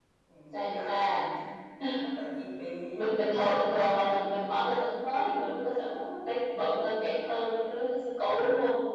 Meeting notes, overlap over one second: present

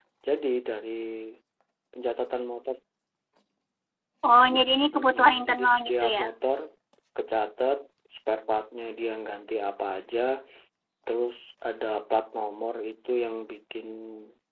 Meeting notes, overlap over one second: present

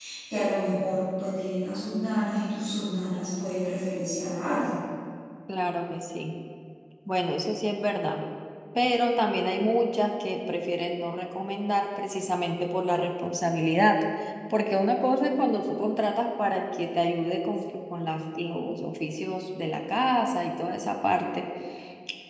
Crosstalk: none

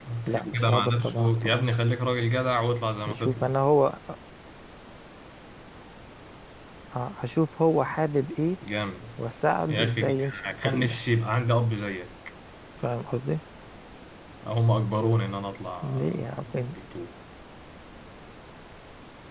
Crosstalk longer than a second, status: present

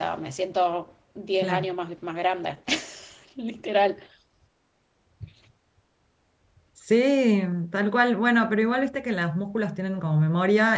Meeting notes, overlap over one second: none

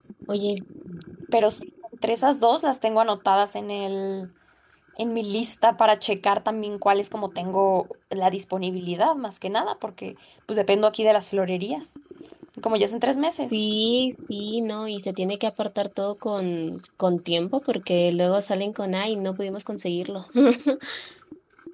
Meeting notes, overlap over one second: none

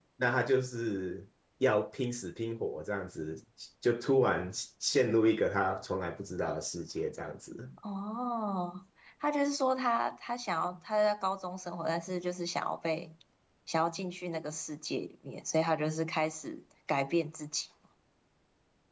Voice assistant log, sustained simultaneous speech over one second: none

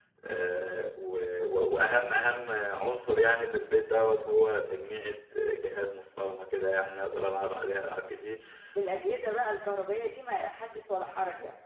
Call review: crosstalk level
none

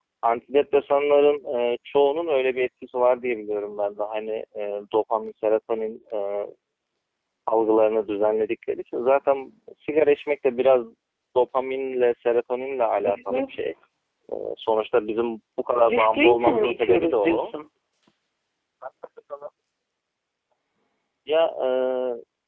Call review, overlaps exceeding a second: present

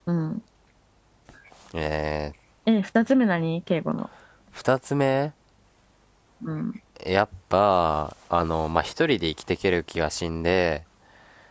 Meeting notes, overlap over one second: none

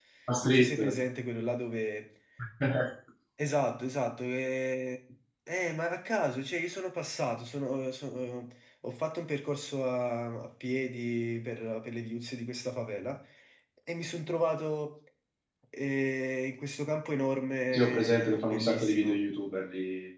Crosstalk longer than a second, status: present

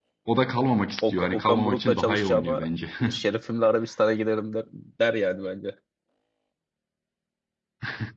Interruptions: present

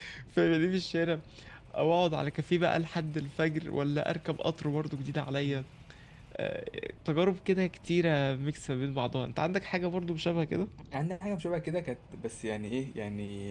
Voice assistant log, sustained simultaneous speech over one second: none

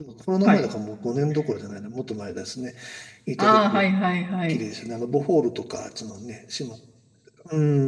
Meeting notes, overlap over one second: none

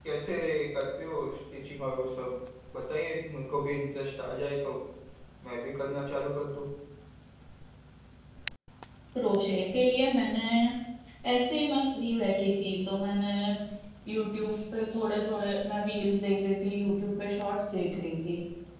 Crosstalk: none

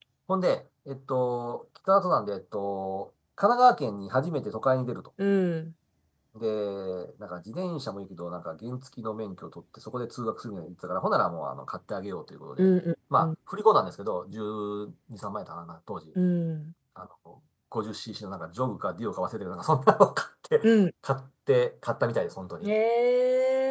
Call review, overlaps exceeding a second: none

